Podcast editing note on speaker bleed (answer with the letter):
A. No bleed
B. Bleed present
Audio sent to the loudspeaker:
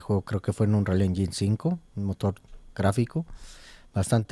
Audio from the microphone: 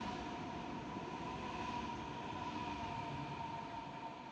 A